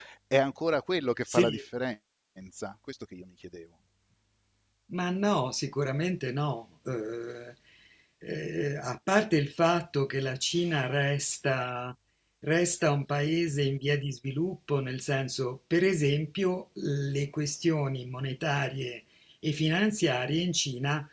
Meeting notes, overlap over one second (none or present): none